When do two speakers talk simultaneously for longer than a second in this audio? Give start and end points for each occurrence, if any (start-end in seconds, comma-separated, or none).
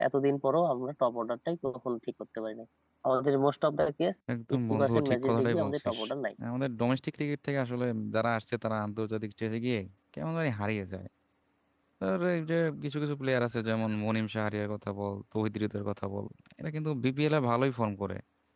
4.5-6.0